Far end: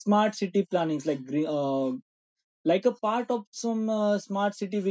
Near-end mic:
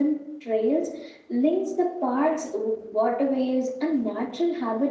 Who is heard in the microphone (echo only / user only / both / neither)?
user only